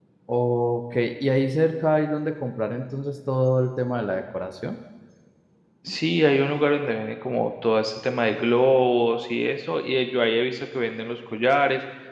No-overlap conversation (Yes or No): Yes